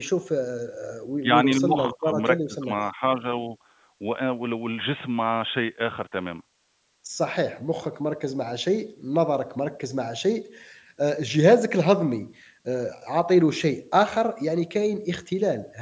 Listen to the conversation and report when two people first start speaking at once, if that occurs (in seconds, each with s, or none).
1.2 s